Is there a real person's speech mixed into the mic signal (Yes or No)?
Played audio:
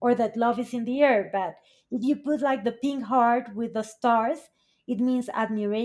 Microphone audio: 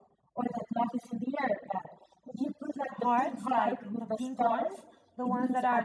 Yes